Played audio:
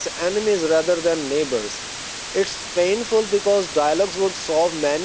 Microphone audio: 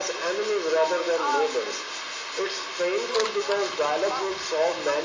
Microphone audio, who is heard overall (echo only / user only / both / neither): both